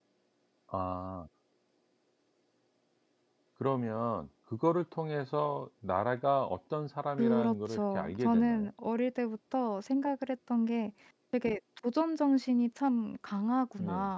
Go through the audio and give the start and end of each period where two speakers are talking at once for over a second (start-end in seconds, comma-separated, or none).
7.2-8.7